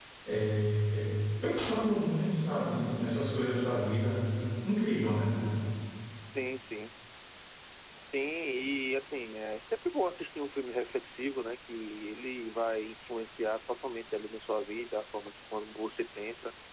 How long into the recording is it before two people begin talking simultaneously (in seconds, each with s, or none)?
none